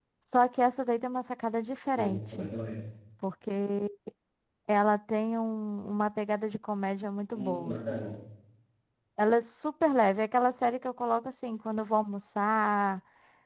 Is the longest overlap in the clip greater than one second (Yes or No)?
No